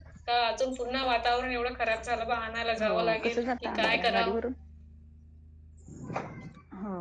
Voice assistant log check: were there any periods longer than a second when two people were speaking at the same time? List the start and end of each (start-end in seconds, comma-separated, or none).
2.8-4.4